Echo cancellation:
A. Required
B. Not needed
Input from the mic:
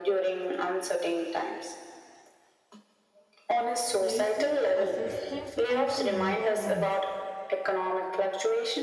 A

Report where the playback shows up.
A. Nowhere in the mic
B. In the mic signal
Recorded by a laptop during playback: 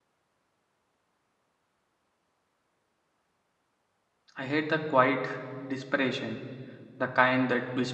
A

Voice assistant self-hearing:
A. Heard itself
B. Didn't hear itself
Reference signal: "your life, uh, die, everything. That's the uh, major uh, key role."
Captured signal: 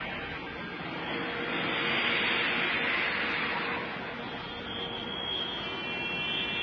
B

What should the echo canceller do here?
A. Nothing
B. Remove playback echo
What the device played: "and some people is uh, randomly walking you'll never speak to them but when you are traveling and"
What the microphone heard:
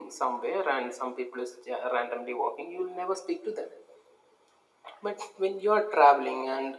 B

